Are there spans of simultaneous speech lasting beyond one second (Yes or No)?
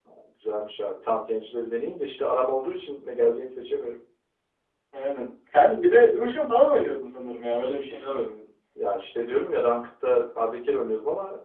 No